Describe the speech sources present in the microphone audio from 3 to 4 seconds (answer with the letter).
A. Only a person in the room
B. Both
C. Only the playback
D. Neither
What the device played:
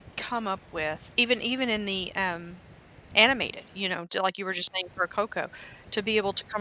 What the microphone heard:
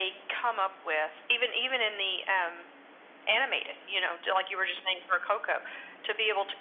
C